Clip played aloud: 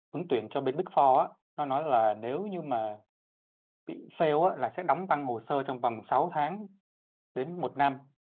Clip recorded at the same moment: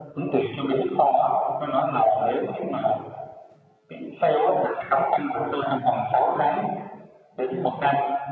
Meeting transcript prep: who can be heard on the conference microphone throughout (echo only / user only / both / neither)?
echo only